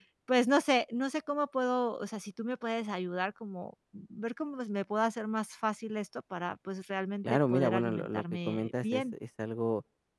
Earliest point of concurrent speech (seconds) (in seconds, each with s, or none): 7.2 s